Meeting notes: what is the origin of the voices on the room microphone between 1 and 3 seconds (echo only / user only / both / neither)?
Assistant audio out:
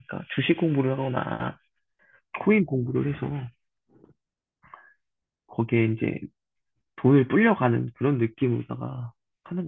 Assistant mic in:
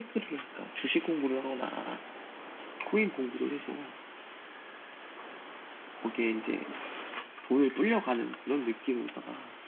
echo only